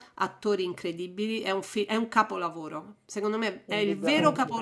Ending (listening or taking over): listening